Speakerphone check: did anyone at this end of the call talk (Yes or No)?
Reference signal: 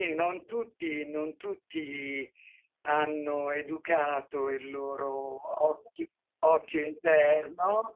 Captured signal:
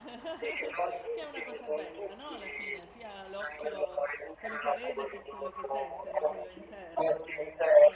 Yes